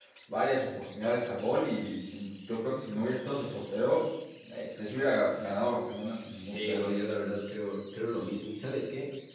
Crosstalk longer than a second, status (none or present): none